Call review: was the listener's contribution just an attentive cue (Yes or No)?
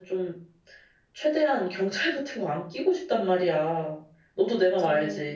No